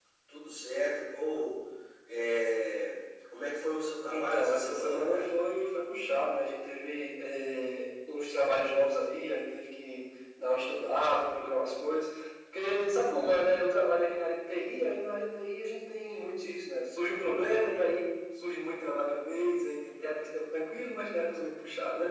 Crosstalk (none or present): present